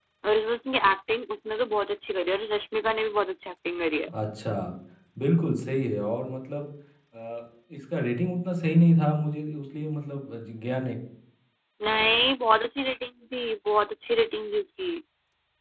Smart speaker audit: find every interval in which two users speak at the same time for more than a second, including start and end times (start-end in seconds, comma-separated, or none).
none